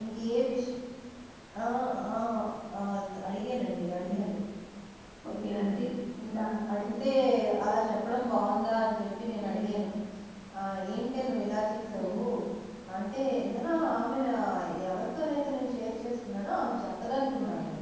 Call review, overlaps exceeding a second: none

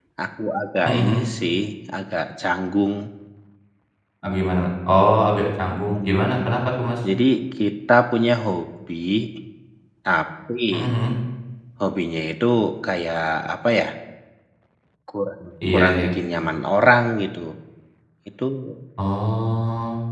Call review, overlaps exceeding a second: none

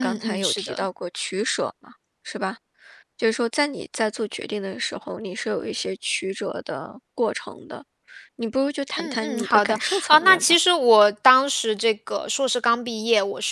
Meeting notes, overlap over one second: present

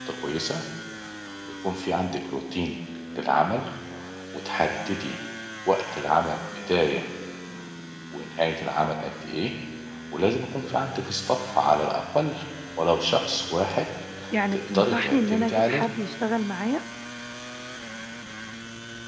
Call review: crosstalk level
present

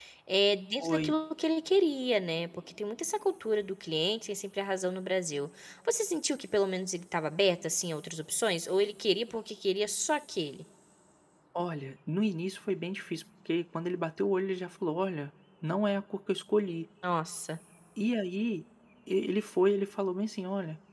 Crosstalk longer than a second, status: none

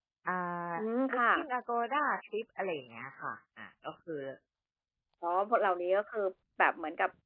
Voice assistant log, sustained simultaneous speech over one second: none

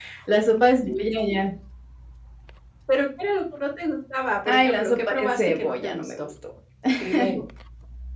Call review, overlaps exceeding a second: present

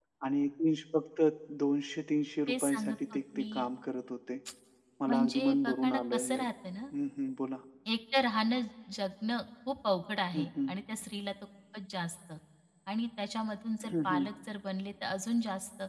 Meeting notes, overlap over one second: present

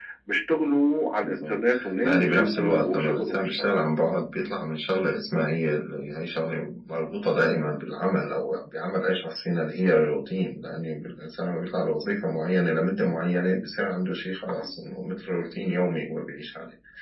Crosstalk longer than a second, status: present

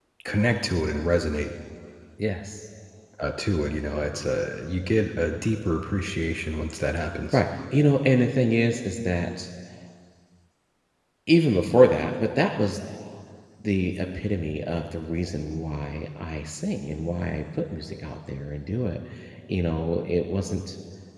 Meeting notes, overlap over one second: none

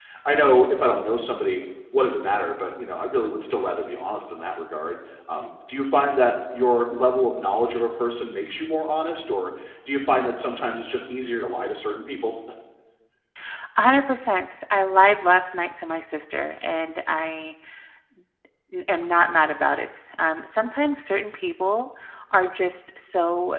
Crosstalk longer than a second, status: none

